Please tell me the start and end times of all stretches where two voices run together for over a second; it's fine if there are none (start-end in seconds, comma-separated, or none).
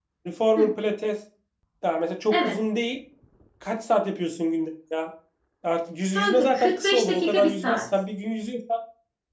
6.1-7.8